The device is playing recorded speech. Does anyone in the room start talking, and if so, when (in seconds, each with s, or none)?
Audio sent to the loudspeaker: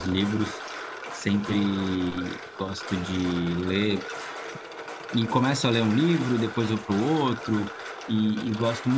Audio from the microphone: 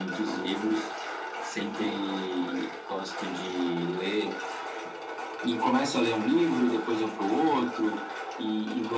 none